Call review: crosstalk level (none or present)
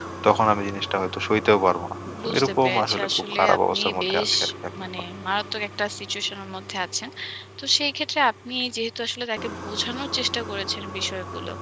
present